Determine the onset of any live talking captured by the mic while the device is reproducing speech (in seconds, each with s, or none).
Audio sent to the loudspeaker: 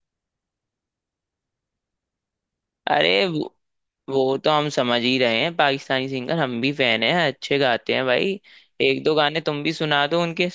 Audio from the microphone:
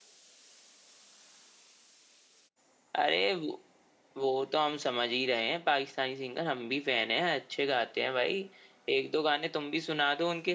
none